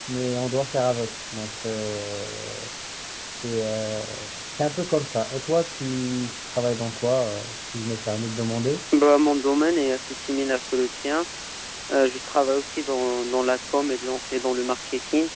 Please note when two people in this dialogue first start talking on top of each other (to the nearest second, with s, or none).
none